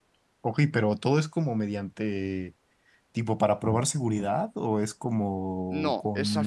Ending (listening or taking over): taking over